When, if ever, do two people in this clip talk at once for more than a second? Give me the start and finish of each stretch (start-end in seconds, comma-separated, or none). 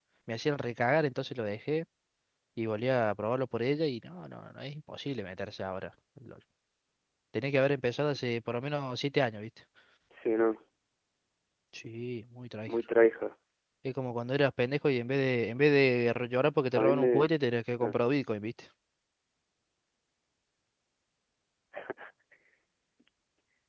none